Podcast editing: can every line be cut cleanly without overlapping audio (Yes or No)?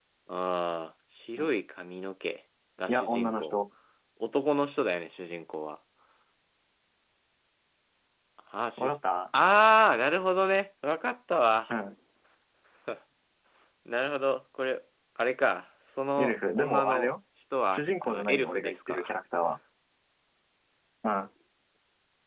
No